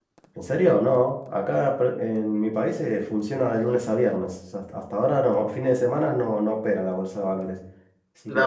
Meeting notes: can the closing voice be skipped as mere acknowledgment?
No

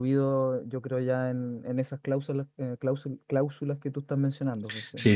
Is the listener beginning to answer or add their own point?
Yes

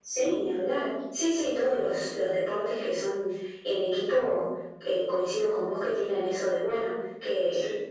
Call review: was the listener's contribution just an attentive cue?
Yes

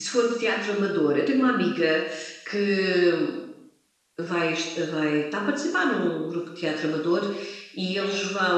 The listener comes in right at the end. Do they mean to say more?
No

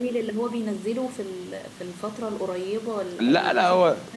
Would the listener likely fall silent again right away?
No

